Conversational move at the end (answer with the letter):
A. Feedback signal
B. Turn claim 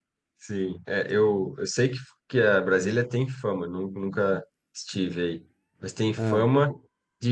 A